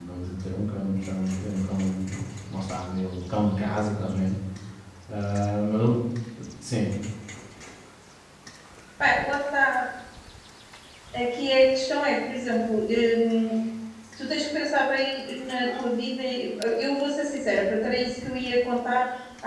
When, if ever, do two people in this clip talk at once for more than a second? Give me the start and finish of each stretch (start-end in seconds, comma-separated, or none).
none